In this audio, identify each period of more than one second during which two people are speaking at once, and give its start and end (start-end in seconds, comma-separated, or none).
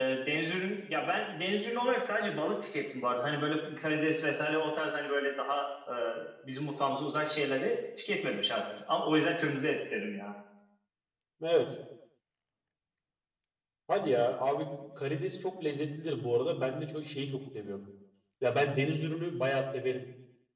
none